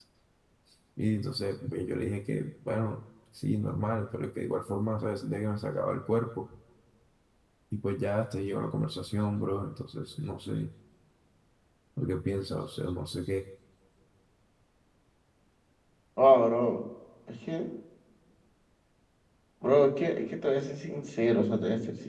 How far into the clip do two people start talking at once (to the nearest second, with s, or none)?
none